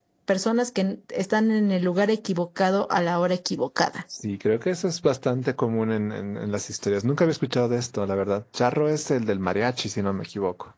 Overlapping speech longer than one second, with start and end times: none

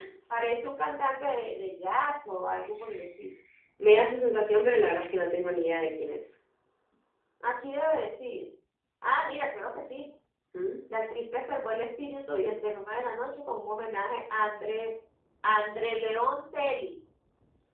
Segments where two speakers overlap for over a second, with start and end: none

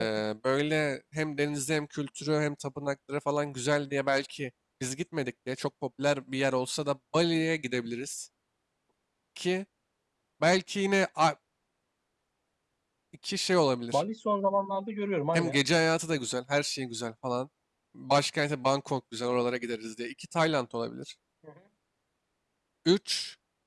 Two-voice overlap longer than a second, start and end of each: none

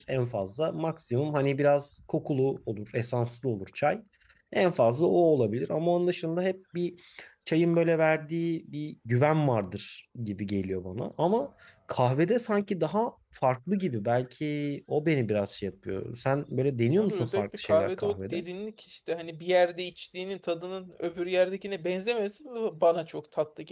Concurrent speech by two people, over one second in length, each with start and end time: 17.0-18.4

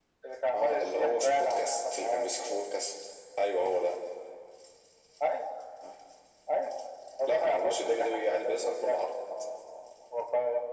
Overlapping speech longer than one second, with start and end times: 0.5-2.6, 7.3-9.1

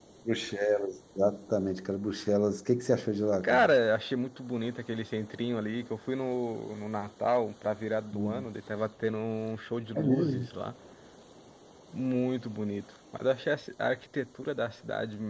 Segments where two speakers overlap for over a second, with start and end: none

